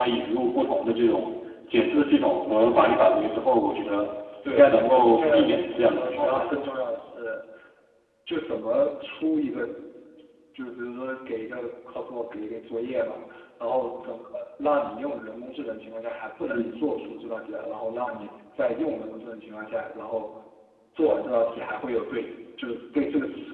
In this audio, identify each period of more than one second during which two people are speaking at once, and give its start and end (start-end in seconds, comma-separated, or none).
4.5-6.6